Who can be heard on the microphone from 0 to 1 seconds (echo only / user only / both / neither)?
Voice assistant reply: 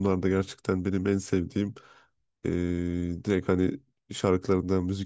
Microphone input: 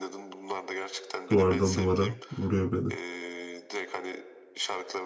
echo only